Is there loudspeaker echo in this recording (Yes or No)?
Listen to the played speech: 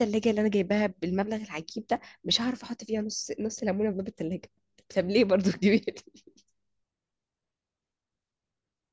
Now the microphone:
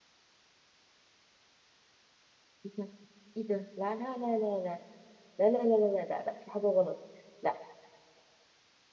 No